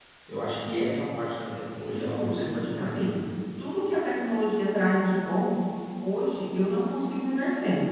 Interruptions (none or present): present